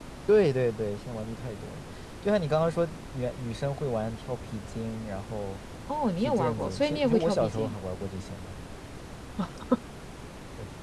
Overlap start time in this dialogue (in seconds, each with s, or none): 6.2 s